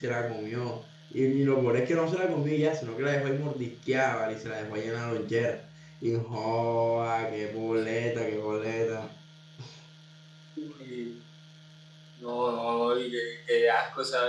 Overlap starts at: none

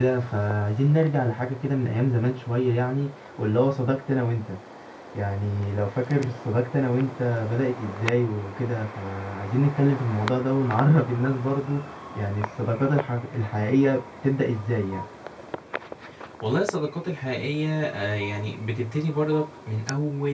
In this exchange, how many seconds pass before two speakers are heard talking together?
none

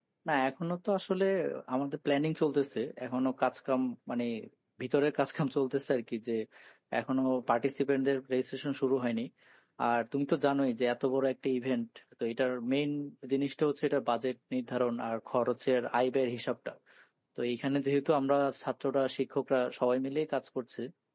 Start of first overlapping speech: none

